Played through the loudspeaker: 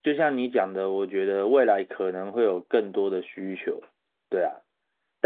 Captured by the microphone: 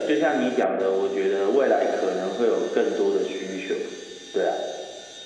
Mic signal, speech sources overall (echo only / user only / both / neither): echo only